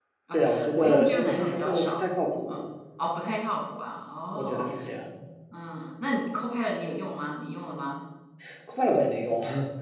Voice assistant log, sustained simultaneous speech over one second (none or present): present